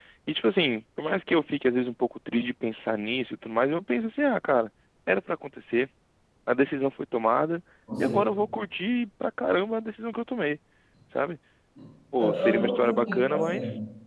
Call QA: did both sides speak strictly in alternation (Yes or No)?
No